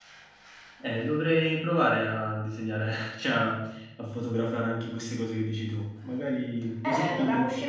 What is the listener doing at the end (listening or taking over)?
taking over